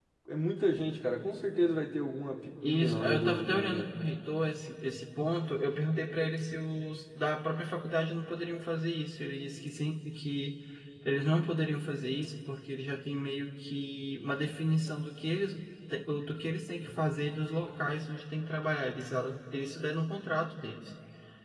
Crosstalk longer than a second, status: present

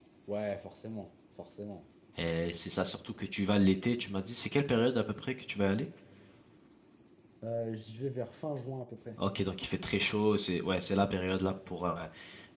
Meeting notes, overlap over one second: none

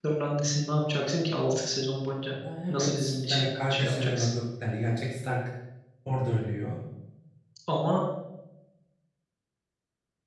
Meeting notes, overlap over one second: present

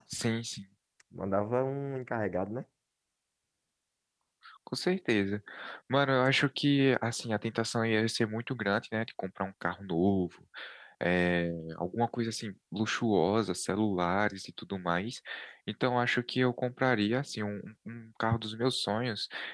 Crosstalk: none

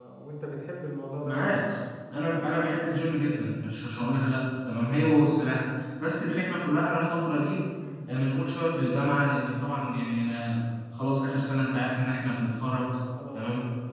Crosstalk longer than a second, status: none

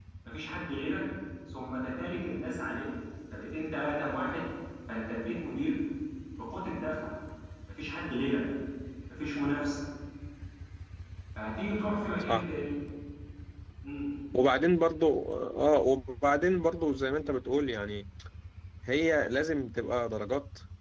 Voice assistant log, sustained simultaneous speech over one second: none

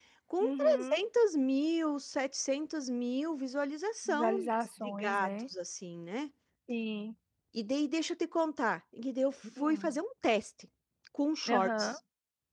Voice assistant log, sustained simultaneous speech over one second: present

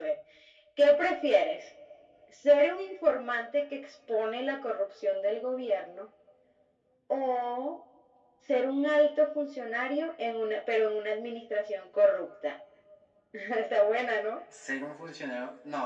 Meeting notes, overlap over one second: none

